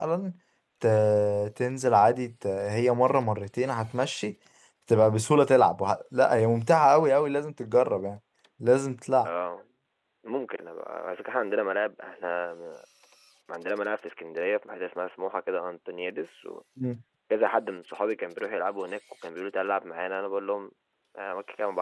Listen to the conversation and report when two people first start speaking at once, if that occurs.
none

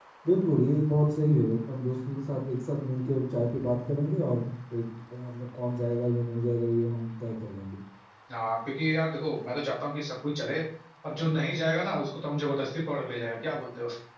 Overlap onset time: none

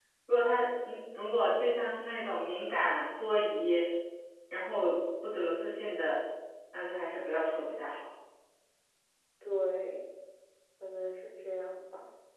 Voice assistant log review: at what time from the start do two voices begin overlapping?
none

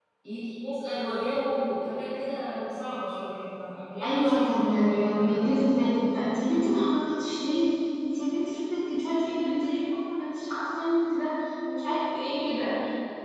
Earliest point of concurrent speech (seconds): 4.0 s

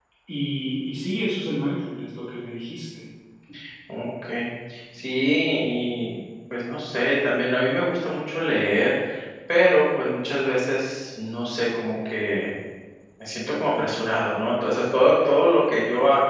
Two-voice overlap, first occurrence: none

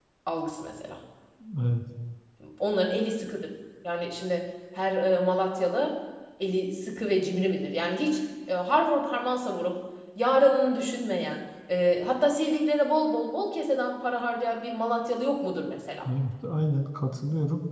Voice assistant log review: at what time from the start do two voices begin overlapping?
none

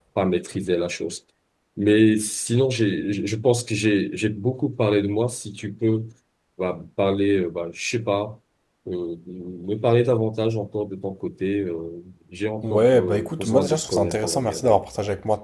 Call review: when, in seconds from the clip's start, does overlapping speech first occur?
12.6 s

